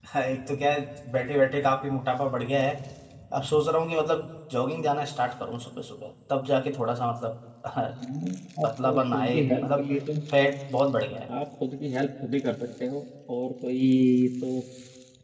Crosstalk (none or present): present